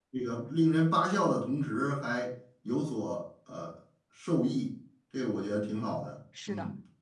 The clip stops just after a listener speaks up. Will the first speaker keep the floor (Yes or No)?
No